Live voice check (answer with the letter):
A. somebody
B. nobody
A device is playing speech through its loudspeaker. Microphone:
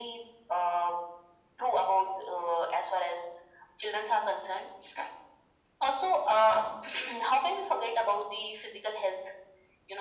B